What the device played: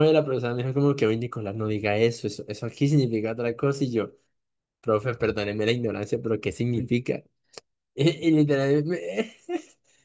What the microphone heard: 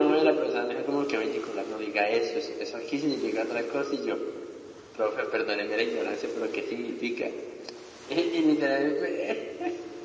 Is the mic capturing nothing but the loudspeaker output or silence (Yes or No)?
Yes